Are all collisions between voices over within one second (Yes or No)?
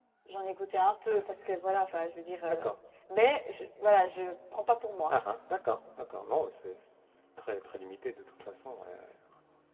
Yes